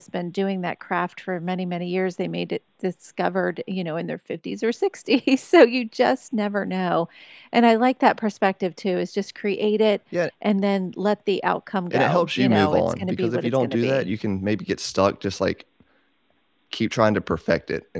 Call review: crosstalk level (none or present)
present